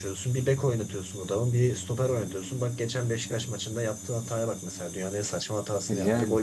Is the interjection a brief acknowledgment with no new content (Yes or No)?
Yes